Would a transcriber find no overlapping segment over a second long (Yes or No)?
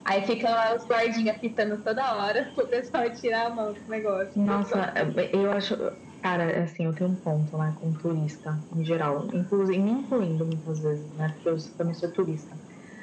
Yes